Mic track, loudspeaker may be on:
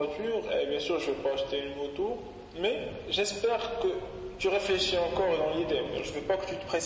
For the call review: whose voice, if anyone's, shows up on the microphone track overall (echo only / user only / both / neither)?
echo only